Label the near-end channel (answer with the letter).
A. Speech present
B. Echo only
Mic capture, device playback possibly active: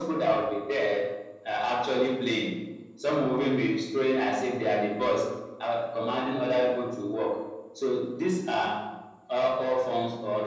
B